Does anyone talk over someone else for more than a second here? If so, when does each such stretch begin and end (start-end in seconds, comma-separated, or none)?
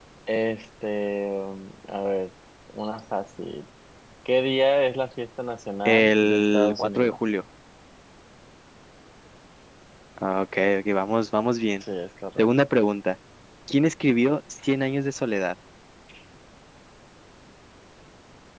5.8-7.2